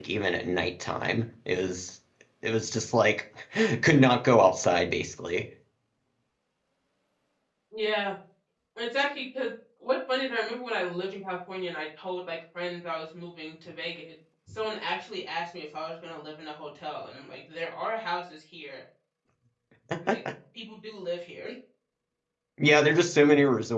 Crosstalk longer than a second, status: none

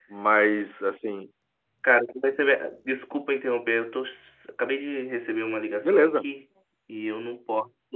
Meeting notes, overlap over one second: none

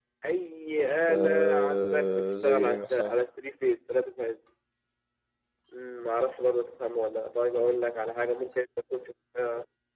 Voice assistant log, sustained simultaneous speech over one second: present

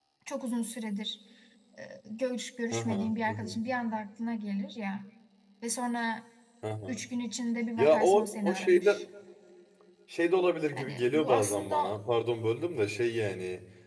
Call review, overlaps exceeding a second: present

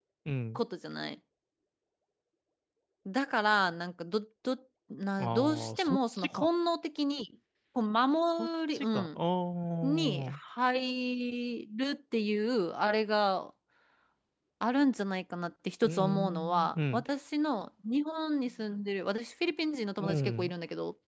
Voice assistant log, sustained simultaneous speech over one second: present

